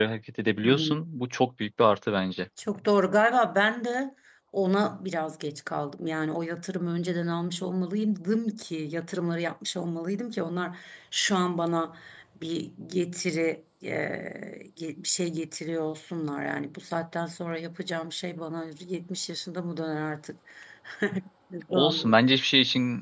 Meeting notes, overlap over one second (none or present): none